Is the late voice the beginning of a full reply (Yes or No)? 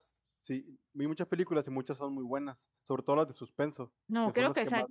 Yes